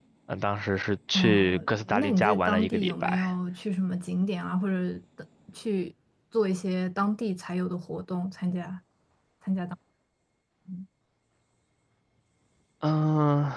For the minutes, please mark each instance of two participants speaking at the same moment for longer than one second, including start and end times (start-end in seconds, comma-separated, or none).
1.1-3.3